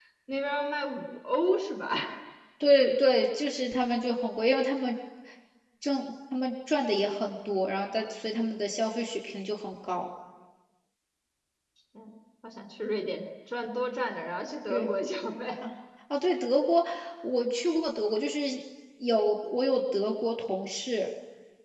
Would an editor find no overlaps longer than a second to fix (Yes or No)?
Yes